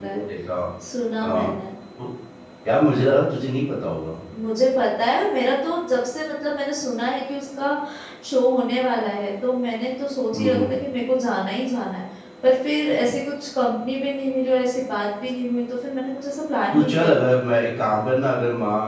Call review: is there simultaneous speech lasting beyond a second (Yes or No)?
No